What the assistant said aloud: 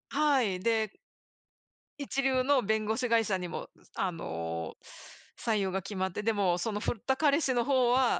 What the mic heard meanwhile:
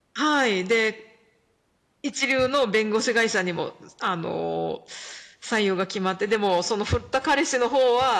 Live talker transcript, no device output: none

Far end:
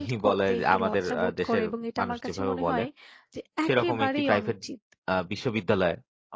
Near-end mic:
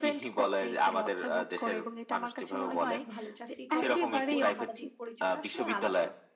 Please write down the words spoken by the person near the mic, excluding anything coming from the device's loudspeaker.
বাবা খুব ভালো চাকরি করে এবং ওর সামাজিক পরিচয়টা আসলে আলাদা।"

